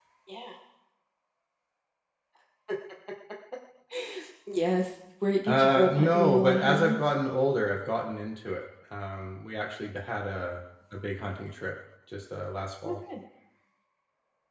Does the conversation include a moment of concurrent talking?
Yes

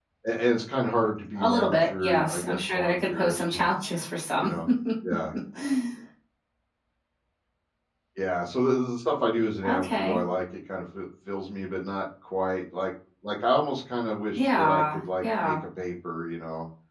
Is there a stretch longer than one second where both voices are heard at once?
Yes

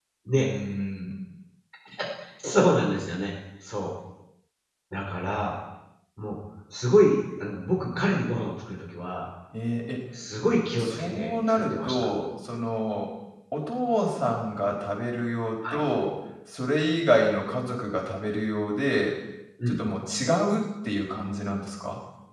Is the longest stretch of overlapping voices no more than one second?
No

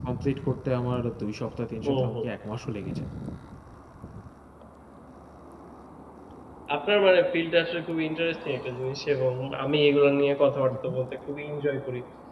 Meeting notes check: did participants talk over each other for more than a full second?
No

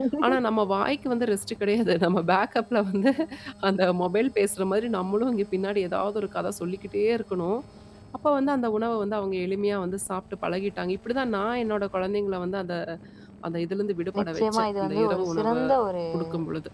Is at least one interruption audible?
Yes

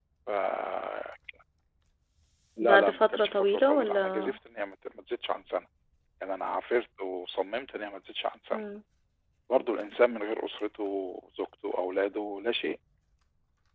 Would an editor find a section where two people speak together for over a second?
Yes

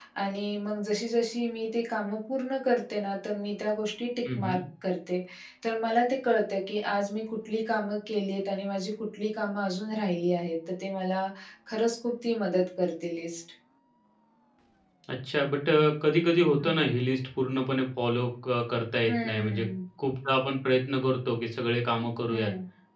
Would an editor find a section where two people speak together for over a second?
No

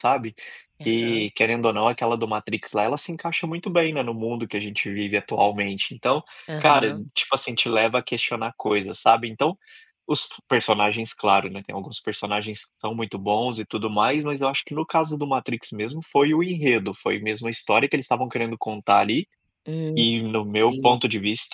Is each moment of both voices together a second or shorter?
Yes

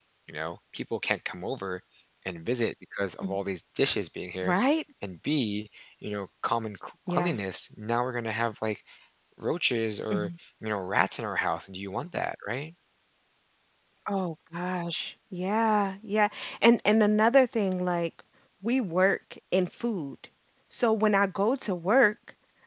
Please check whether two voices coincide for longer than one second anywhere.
No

